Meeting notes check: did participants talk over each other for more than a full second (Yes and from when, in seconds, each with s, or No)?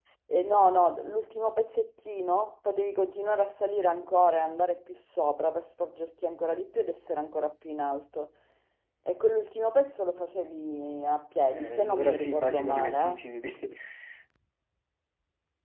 Yes, from 11.5 s